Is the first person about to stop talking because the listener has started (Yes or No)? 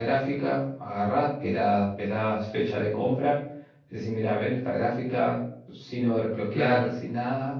No